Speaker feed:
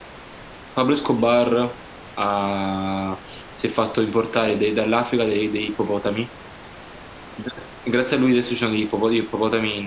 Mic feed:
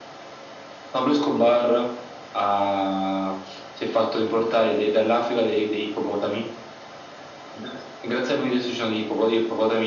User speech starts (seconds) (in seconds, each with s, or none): none